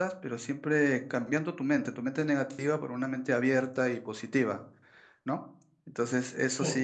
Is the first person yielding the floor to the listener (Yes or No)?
No